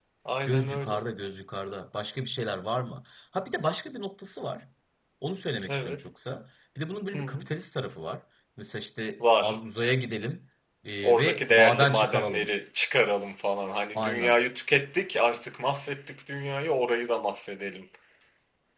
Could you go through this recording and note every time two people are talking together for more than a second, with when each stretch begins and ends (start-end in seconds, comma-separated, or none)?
11.0-12.5